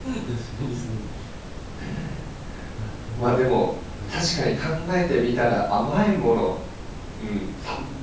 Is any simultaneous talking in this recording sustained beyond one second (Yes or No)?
No